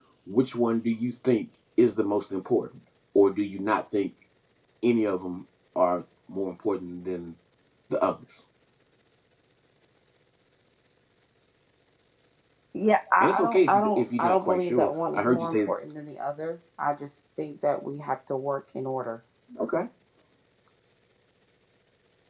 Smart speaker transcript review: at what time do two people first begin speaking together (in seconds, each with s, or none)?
13.2 s